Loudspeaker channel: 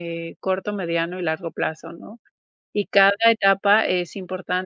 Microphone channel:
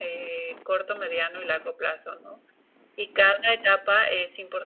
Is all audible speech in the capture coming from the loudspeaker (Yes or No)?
Yes